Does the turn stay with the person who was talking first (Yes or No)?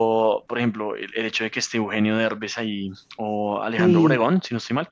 Yes